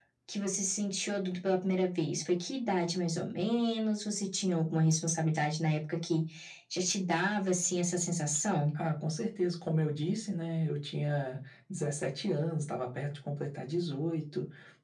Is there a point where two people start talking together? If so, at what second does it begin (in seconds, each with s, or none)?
none